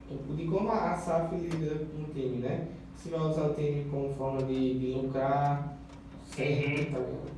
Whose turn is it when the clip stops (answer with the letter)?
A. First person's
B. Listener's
B